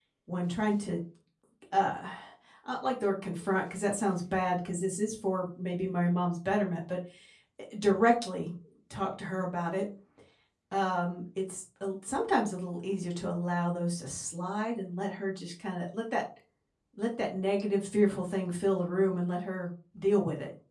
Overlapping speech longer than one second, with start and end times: none

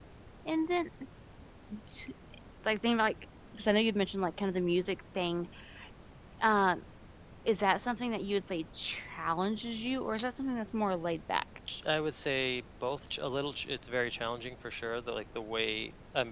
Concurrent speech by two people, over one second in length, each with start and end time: none

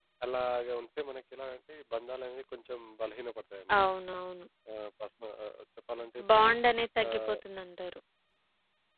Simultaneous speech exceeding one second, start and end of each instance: none

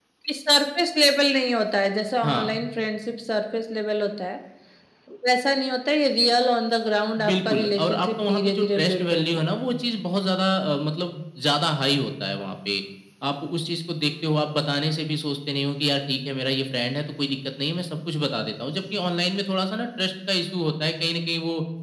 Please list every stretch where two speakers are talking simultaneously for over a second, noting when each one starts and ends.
7.2-9.5

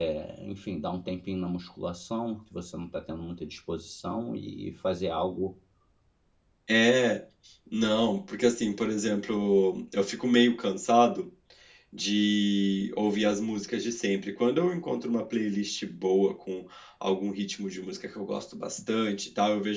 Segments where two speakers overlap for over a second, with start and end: none

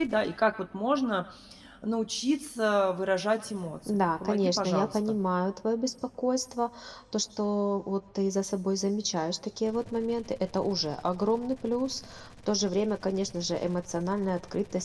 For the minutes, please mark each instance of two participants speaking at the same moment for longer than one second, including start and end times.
3.9-5.2

